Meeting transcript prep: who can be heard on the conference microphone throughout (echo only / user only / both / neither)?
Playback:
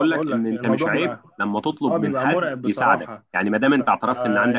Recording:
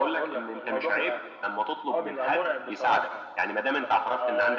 echo only